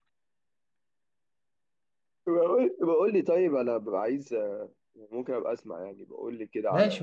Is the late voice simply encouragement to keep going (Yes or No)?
No